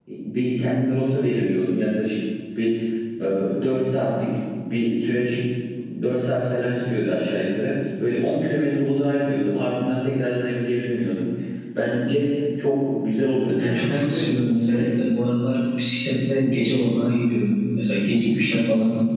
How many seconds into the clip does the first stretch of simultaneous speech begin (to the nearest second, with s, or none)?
14 s